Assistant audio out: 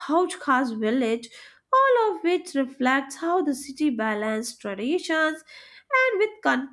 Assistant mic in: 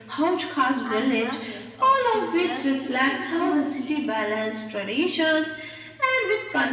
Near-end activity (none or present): present